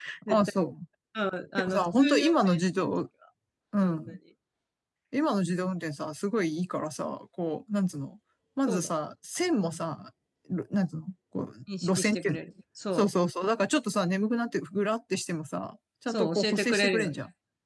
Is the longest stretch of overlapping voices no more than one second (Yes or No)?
No